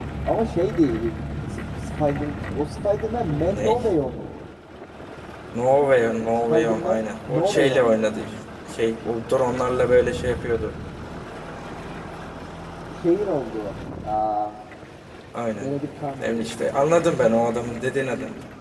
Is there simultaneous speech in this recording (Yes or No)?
Yes